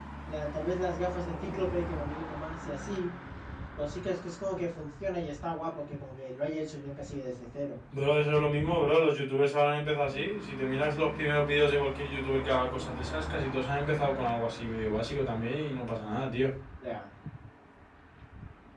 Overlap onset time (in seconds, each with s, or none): none